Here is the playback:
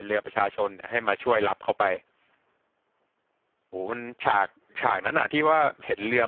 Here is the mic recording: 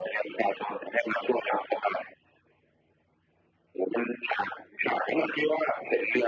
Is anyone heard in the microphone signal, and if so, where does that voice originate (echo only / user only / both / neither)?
echo only